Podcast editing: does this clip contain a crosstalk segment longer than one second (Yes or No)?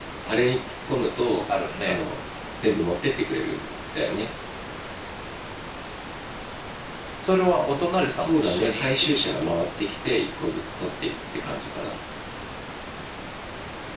Yes